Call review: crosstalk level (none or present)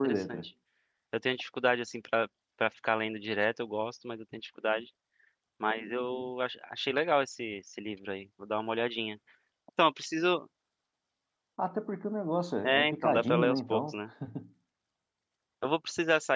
present